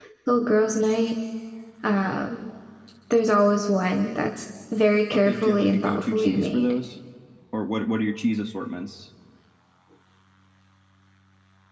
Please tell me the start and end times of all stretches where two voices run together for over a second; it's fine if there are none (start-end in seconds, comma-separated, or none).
5.1-6.7